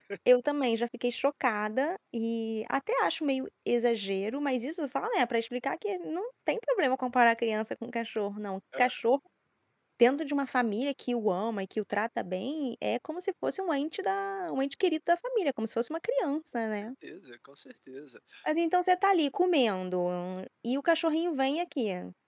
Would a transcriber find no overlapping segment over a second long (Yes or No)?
Yes